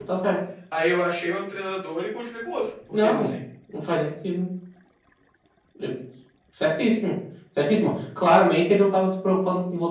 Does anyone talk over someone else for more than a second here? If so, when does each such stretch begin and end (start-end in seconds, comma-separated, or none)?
none